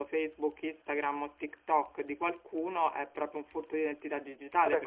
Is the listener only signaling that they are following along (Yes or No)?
No